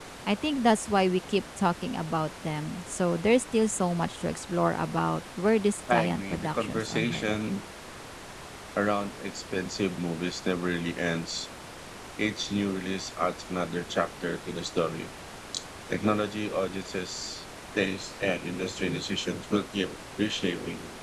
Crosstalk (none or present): present